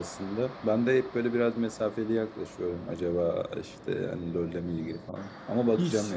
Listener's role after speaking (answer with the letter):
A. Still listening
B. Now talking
B